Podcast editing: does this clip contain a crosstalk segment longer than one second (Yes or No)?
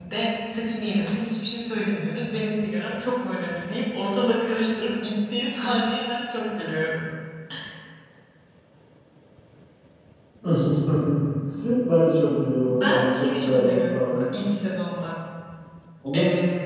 Yes